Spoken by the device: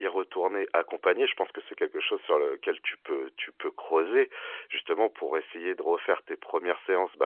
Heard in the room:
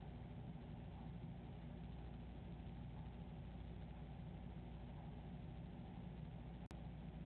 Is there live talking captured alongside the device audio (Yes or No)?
No